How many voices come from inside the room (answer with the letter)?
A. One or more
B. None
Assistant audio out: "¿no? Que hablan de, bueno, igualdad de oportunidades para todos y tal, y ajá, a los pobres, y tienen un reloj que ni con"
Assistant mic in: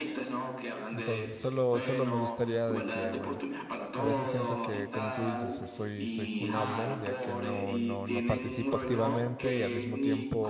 A